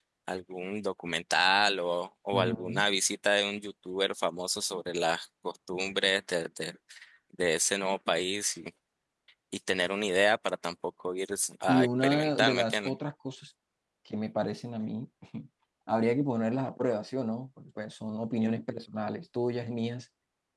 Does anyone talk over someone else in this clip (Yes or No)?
Yes